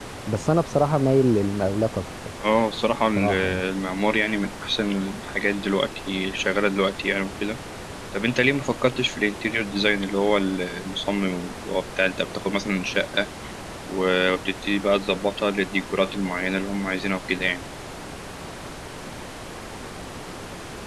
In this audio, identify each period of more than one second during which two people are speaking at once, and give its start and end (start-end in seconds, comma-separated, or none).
none